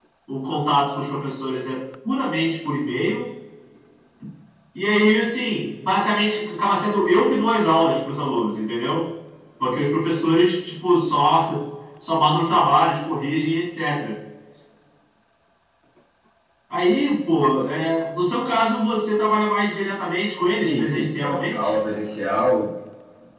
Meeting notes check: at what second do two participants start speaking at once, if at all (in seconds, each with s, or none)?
20.5 s